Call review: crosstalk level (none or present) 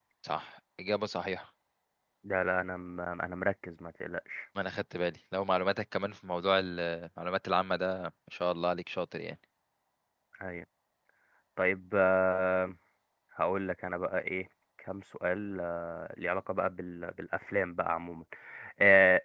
none